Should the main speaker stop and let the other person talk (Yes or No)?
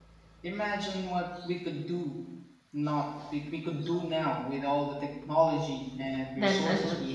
Yes